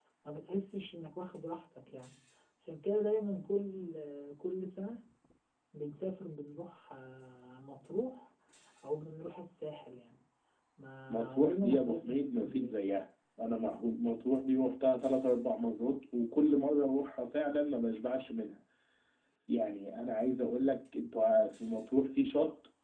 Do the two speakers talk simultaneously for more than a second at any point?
Yes, from 11.2 s

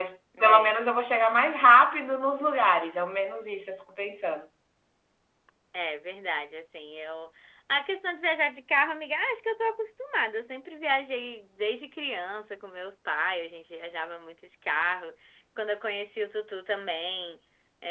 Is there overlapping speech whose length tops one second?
No

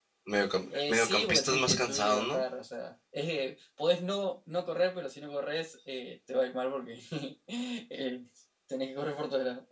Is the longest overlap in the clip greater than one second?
Yes, from 0.7 s

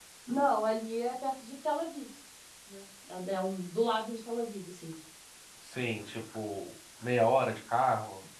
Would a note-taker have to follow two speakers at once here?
No

